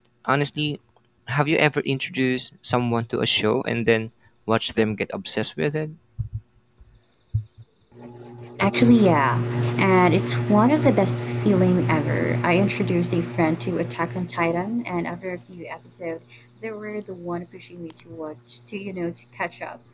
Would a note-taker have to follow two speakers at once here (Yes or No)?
No